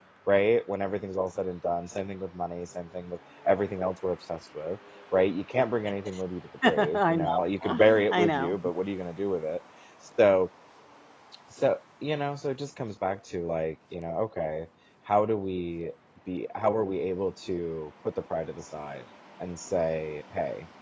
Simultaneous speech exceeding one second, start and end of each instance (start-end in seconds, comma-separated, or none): 6.6-8.6